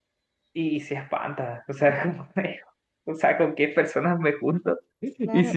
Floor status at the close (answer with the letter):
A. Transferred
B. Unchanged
A